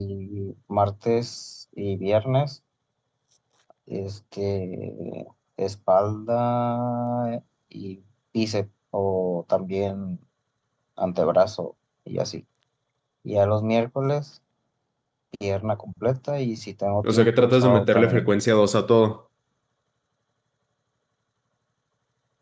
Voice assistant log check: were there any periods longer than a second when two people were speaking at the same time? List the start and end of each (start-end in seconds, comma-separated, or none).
17.0-18.2